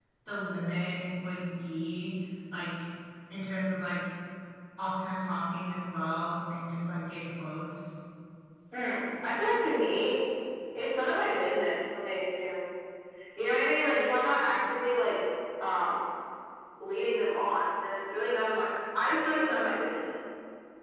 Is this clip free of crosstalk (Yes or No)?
Yes